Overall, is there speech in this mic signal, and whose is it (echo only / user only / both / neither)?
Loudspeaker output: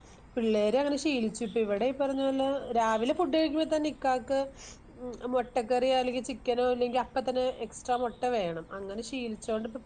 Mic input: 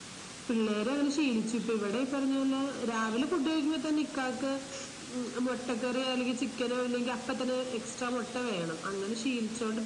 echo only